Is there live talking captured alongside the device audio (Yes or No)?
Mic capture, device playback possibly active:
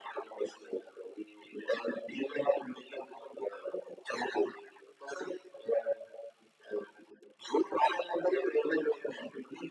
No